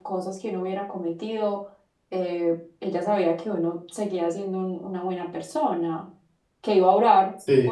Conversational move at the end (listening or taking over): listening